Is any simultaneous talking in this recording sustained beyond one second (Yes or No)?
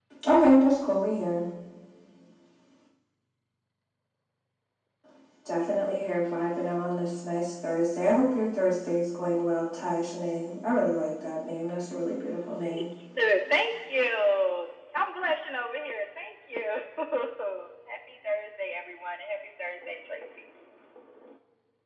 No